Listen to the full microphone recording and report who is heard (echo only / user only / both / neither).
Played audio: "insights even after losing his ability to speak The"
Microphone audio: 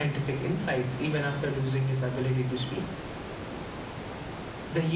echo only